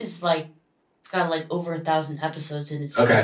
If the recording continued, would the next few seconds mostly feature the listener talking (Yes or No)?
Yes